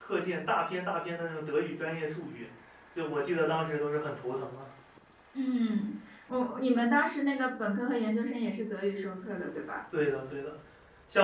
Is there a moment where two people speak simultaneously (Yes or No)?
No